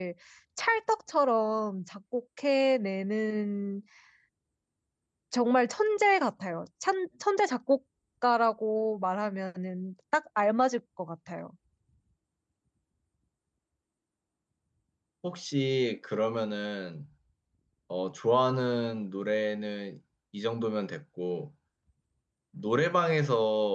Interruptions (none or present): none